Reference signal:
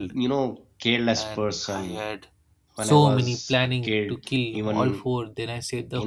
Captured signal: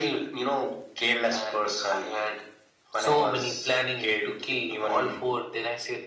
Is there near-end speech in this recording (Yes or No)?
No